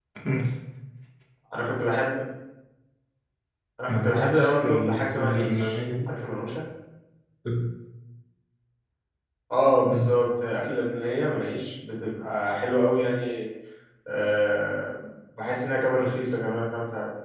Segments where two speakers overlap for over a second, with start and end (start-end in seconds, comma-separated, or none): 3.9-5.8